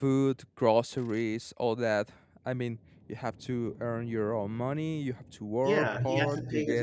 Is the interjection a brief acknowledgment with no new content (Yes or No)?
No